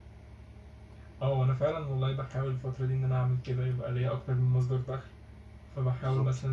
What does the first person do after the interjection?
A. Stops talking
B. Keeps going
B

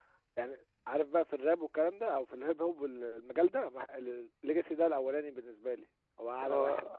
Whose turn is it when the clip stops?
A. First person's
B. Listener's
B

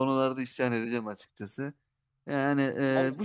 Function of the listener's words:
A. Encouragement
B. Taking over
A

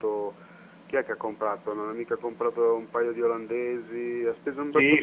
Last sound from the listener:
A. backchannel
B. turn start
B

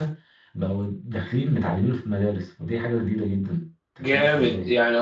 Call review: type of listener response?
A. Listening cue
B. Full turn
B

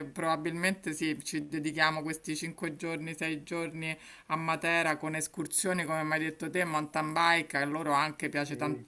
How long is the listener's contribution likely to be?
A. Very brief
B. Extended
A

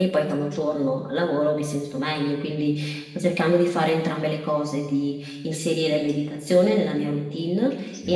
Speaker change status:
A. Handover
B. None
B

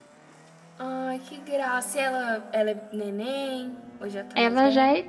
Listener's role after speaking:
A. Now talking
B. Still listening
A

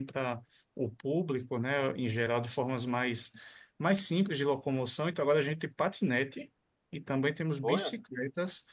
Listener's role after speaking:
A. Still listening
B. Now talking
A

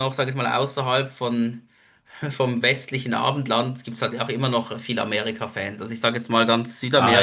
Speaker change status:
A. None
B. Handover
B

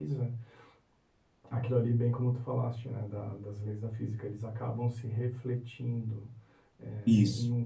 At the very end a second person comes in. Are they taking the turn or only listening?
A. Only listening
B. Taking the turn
A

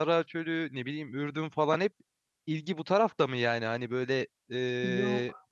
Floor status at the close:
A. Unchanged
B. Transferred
A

